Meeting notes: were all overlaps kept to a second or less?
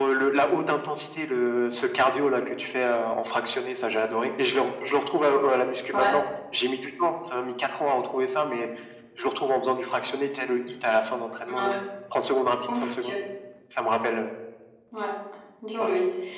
Yes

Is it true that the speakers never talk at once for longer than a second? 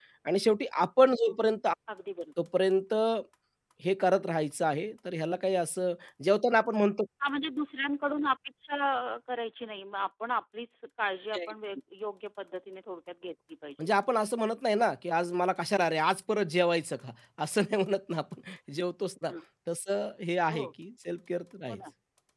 Yes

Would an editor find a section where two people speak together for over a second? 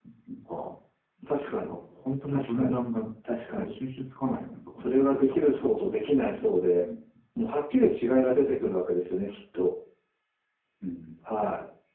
Yes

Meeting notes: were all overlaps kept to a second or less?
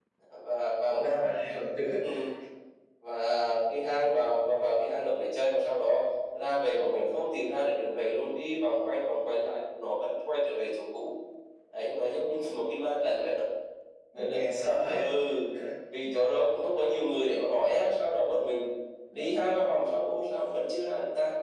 Yes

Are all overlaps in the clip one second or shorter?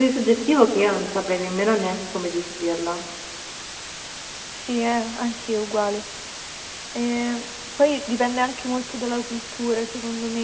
Yes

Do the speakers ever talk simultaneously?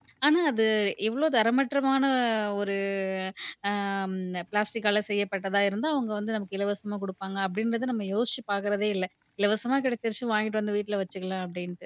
No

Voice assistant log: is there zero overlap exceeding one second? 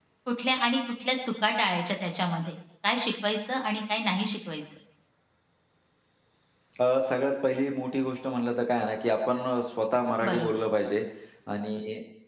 Yes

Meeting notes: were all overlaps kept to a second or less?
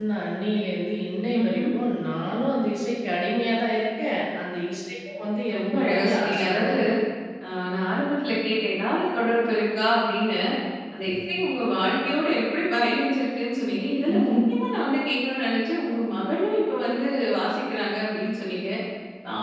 No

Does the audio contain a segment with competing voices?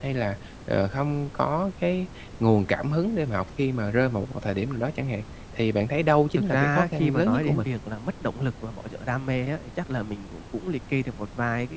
Yes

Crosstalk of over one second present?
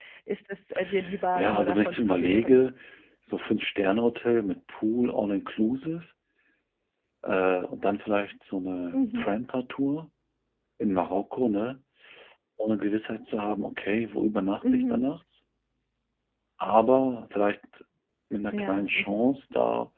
Yes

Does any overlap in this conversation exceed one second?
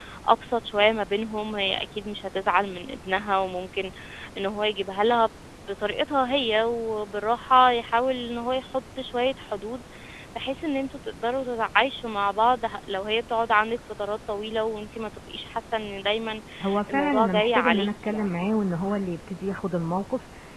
Yes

